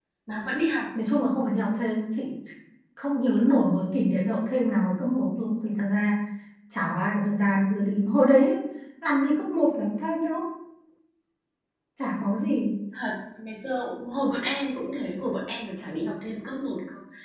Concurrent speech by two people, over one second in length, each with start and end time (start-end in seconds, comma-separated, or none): none